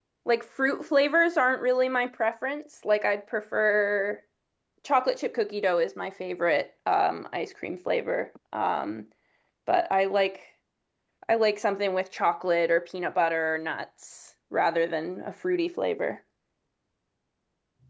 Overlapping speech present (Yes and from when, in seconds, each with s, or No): No